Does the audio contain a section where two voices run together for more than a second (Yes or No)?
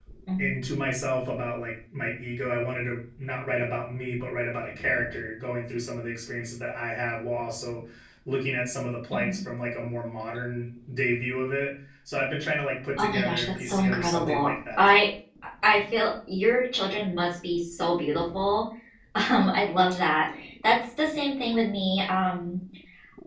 Yes